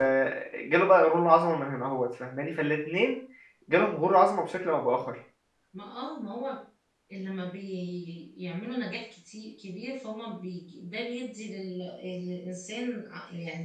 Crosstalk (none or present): none